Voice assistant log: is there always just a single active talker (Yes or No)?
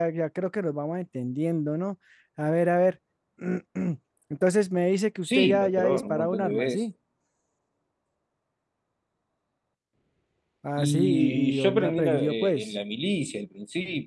No